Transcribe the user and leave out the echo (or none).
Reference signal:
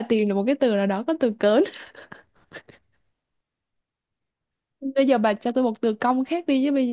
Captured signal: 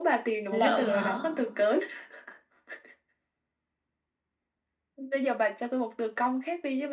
lợm hả?